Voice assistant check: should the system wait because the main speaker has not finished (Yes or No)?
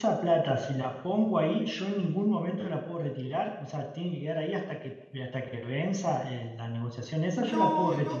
No